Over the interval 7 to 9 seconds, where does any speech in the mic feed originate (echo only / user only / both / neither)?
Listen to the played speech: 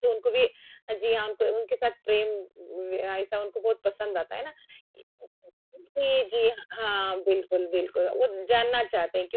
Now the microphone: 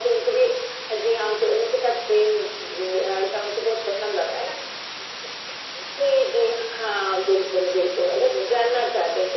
echo only